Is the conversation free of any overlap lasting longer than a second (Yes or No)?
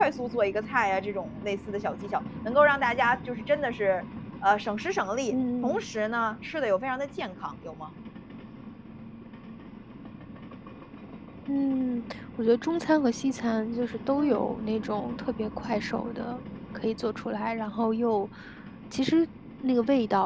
Yes